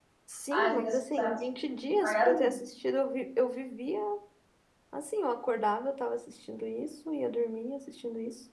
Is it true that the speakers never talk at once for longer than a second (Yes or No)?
No